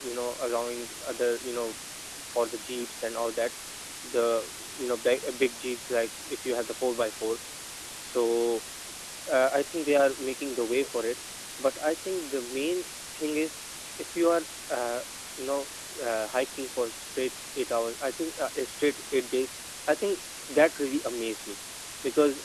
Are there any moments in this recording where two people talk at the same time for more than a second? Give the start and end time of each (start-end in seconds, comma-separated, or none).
none